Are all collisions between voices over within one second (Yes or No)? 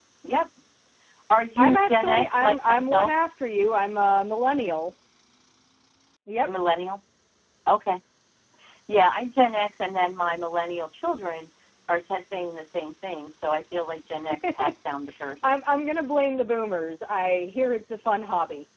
No